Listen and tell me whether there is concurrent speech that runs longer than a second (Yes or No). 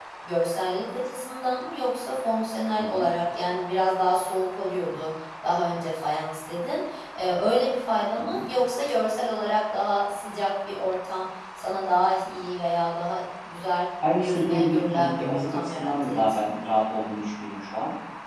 Yes